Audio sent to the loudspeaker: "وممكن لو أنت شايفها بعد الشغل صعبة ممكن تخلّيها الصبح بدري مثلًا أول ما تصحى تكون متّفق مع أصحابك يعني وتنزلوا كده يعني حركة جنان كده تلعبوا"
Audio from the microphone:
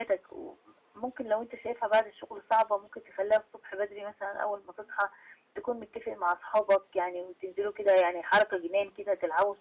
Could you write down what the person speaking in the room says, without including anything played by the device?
none

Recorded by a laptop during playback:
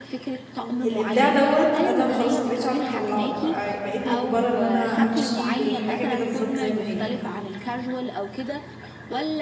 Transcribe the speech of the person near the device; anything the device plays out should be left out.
م الإبداع دوّة أنا خلاص ما بقيتش عارفة أطلّعه، بقى بقيت مُجبرة إن أنا أمشي بالحاجة كده بالضبط زي ما هي.

